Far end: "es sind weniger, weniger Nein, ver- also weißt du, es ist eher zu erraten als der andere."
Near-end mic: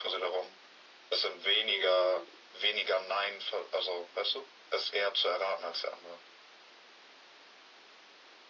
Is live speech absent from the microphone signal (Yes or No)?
No